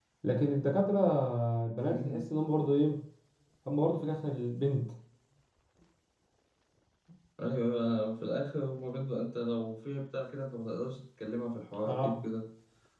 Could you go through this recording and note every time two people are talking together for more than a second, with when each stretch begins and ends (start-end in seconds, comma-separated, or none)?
none